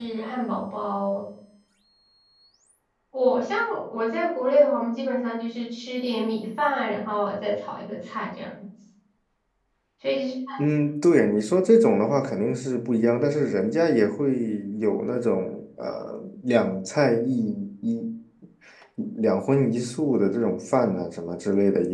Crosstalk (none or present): none